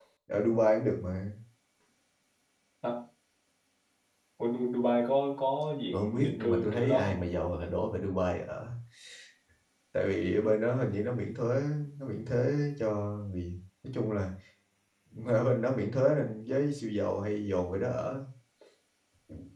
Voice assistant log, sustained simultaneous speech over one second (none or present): present